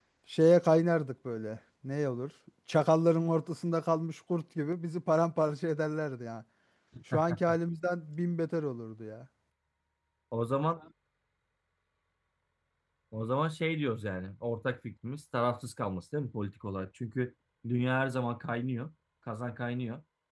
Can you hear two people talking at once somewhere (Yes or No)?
No